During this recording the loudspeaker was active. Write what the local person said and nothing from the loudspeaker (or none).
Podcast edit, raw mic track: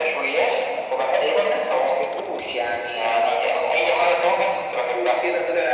none